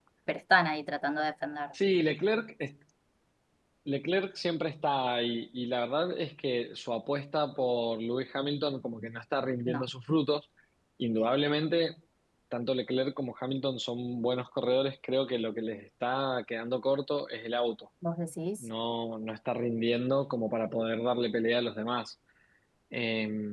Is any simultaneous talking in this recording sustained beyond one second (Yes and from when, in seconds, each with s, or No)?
No